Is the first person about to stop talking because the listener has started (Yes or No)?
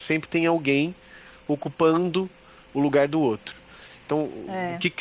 No